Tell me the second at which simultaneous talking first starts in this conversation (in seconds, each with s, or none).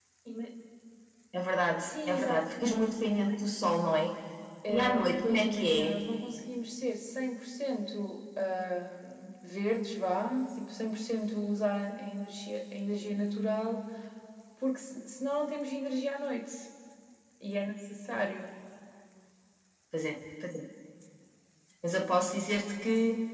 1.8 s